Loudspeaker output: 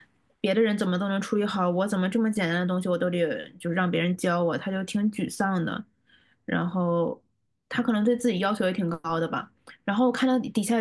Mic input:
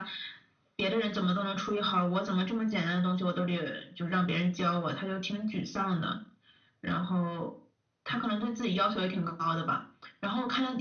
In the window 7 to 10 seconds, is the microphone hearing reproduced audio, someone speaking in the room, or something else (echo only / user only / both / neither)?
echo only